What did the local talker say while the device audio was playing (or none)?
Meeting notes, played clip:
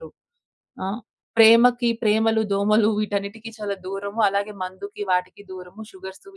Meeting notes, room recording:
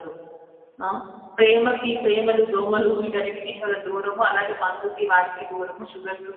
none